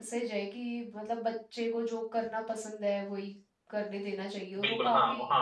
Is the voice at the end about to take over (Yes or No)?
Yes